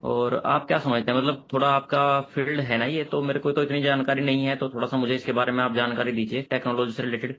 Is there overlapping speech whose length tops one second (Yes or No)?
No